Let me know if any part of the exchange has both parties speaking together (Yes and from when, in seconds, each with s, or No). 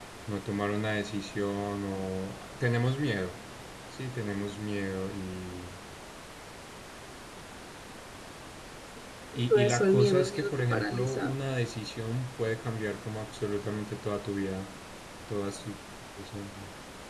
Yes, from 9.3 s